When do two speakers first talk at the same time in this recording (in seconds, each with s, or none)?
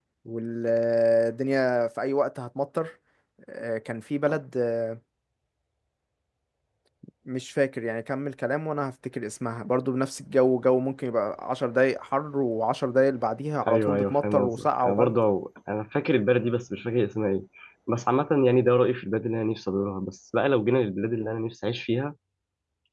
13.6 s